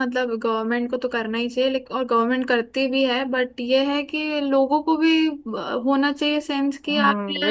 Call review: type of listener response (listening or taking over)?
taking over